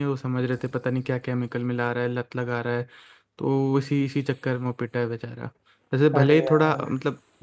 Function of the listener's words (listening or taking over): listening